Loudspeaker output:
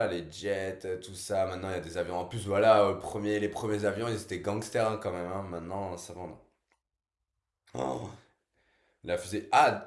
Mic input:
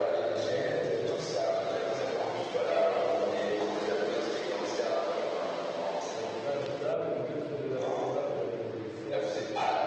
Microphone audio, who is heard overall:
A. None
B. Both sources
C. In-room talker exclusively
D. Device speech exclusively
B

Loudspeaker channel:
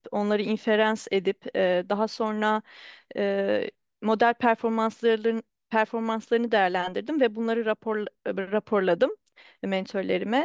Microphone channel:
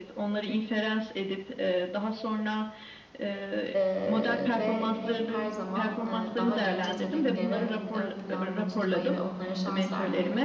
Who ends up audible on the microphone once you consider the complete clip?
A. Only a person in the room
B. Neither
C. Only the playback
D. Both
D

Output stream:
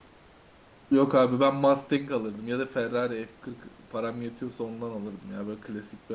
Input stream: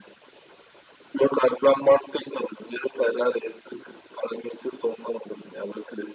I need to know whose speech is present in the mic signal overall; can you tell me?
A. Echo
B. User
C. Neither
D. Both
A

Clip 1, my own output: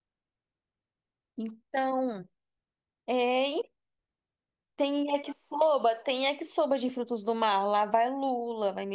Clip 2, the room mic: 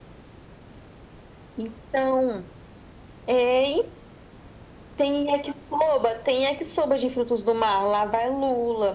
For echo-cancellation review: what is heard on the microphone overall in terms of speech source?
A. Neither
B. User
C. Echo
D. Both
C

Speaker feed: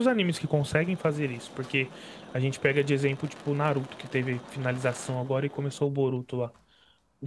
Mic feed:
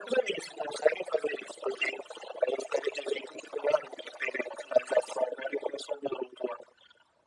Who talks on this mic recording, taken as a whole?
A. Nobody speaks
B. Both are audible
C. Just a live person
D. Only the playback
D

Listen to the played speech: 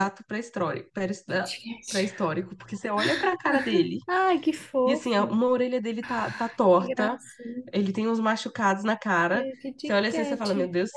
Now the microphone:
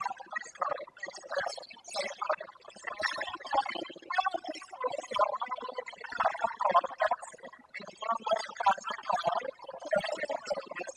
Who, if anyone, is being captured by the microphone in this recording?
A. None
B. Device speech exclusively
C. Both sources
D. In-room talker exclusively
B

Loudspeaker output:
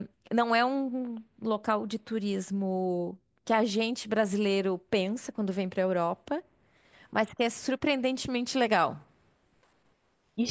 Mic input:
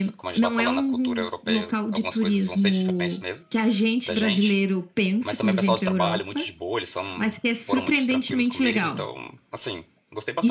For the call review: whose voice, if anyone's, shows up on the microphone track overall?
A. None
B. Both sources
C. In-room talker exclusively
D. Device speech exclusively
B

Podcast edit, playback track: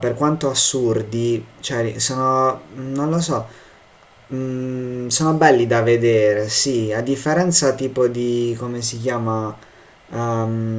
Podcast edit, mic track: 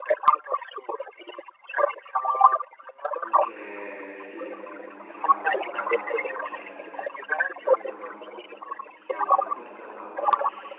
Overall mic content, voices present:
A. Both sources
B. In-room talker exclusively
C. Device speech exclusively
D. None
A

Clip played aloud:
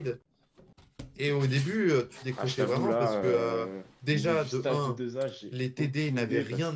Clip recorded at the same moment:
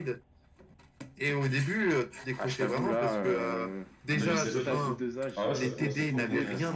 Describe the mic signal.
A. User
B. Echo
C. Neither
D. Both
D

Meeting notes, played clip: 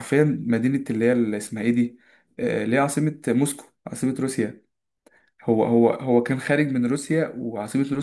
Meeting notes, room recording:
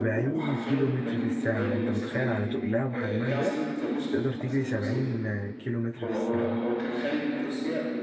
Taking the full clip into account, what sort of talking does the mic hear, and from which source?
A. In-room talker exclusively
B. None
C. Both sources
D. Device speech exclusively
C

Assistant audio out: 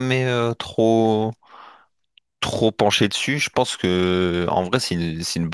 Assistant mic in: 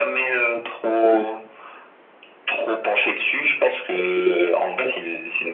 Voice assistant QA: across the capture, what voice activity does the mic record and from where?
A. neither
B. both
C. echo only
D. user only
C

